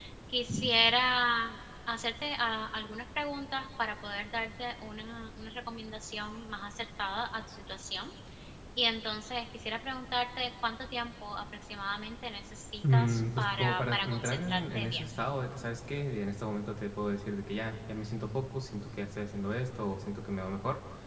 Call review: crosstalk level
present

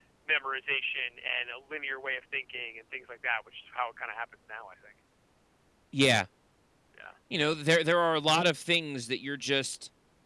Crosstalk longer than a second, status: none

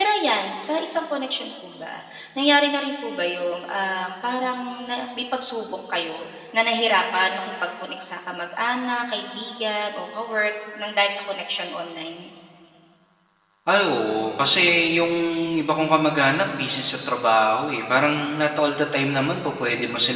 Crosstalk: none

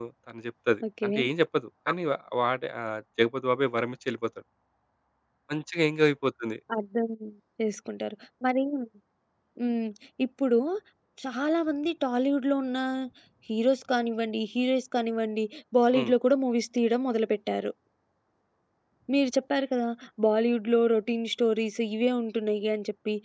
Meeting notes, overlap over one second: none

